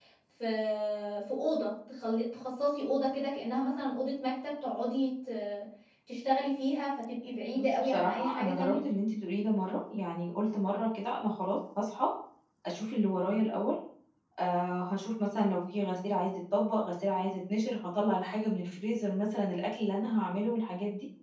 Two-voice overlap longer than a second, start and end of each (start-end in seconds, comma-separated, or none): 7.6-8.8